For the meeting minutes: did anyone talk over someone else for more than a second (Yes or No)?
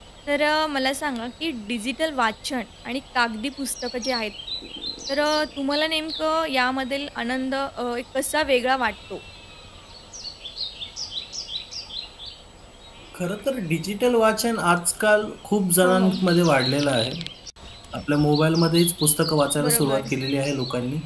No